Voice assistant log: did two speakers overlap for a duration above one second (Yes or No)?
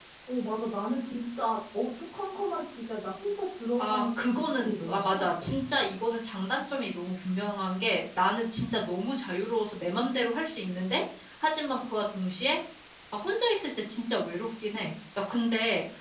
Yes